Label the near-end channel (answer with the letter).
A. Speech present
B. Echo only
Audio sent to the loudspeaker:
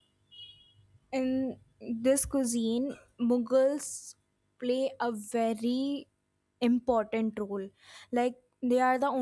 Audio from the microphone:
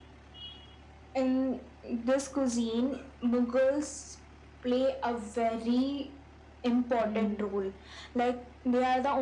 A